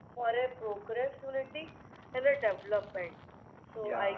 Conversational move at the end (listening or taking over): listening